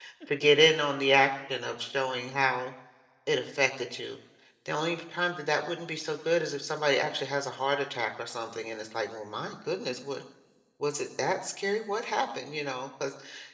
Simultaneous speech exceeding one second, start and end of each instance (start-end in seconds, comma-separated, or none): none